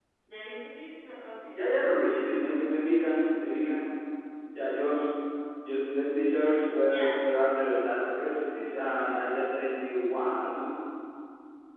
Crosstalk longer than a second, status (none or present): none